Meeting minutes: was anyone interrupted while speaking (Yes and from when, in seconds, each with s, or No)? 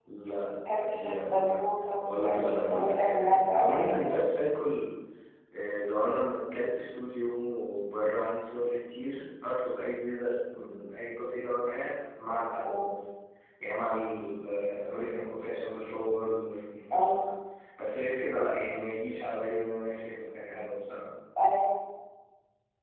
Yes, from 0.7 s